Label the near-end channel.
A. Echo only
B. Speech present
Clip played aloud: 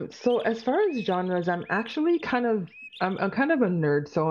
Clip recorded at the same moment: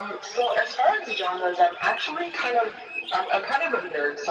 A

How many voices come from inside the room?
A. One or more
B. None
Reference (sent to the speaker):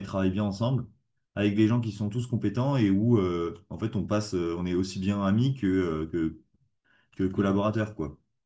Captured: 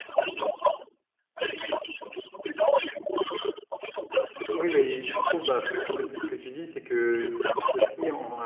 A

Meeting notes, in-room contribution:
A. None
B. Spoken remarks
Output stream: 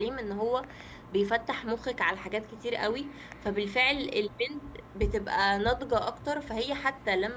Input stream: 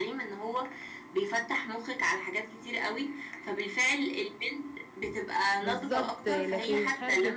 B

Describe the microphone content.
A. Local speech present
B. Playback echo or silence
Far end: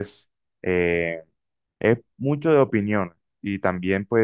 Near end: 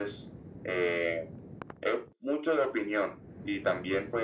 B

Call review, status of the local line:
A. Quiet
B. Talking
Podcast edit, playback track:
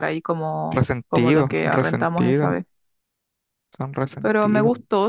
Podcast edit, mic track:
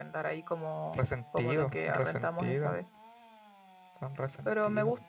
A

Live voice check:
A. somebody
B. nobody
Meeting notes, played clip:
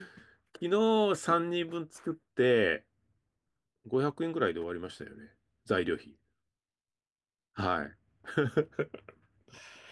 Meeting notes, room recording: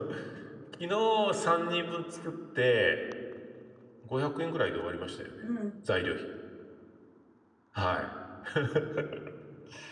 A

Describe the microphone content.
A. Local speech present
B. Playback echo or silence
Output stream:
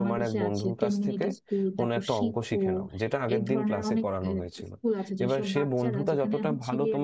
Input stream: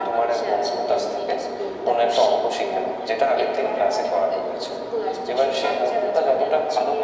B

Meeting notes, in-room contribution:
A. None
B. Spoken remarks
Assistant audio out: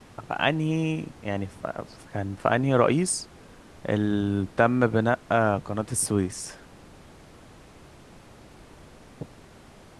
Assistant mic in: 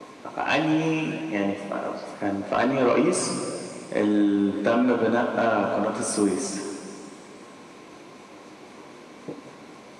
A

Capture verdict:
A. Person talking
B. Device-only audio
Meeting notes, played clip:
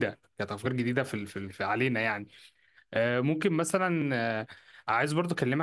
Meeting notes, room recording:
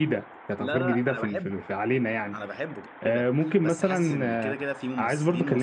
A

